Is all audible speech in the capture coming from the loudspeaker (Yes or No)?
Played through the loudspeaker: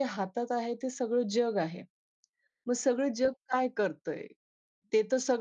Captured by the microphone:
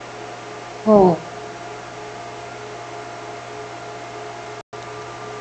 No